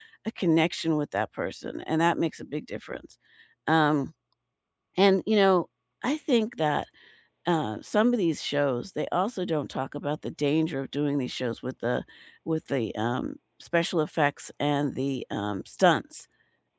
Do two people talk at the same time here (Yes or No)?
No